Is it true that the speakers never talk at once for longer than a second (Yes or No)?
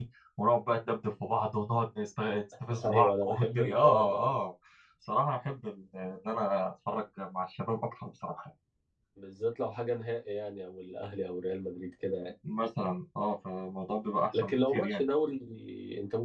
No